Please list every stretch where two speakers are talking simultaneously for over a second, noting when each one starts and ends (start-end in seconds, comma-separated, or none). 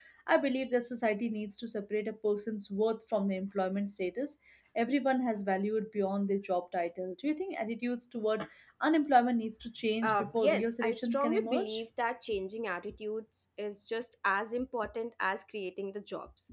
10.0-11.8